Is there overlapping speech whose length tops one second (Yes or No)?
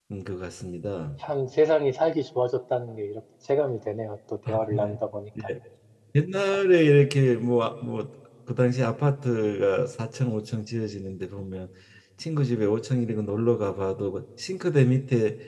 No